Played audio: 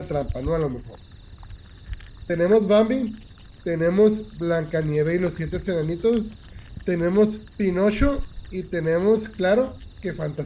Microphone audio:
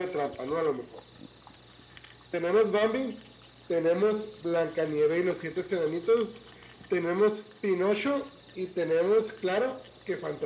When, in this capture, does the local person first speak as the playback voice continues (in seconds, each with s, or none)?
none